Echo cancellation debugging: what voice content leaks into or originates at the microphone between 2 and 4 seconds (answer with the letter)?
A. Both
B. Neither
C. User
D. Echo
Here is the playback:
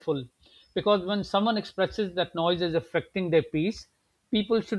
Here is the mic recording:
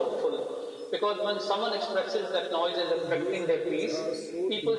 A